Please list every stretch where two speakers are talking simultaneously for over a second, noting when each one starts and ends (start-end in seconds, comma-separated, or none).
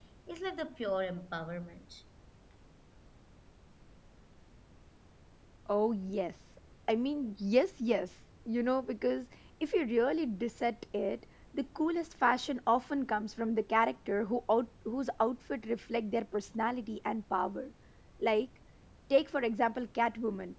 none